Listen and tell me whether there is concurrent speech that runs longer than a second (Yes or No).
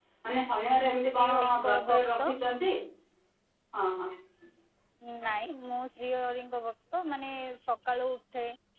Yes